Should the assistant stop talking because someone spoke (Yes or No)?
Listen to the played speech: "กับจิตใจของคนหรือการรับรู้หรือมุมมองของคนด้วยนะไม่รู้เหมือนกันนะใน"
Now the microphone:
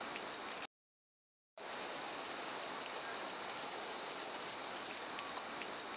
No